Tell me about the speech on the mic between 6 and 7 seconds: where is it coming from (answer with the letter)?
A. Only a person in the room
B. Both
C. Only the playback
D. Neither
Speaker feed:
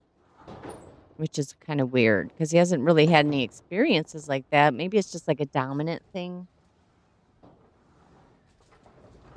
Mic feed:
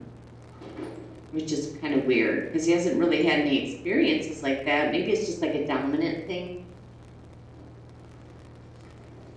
C